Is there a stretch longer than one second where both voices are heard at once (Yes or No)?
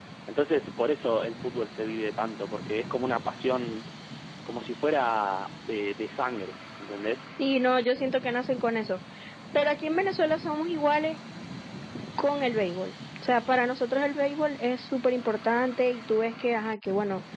No